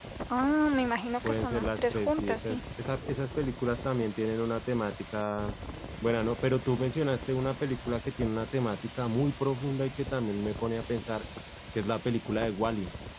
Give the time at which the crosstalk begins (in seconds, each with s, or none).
1.3 s